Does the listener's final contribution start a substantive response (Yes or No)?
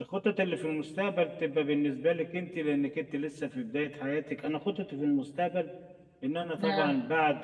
No